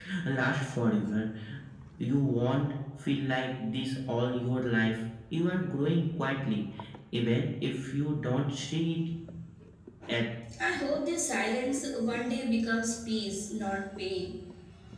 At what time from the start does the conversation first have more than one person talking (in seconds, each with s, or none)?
none